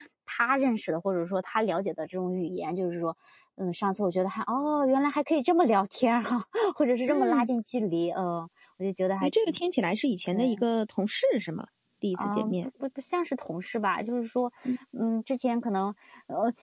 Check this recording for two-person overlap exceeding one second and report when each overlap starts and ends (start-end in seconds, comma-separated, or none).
none